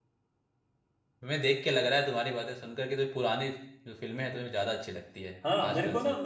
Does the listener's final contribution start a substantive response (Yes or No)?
Yes